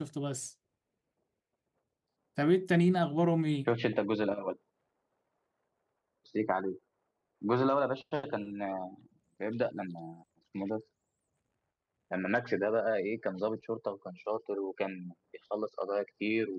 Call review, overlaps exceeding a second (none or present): none